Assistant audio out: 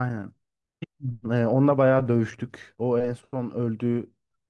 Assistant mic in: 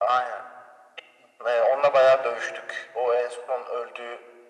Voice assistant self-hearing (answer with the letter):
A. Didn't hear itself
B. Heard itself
B